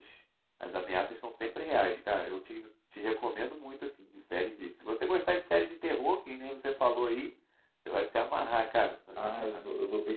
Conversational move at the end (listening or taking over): taking over